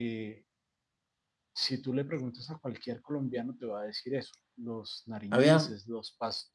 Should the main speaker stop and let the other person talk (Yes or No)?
No